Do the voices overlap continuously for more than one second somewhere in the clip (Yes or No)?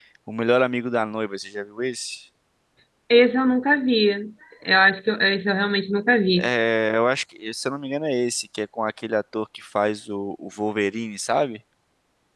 No